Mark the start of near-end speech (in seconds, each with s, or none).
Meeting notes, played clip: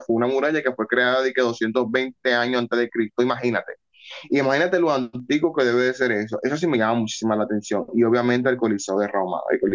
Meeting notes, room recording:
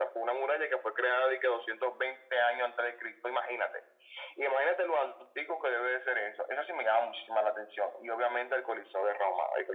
none